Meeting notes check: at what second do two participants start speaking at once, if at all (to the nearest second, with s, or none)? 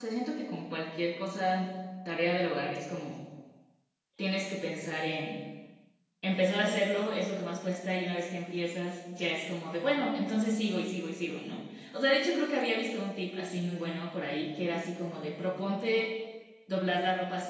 none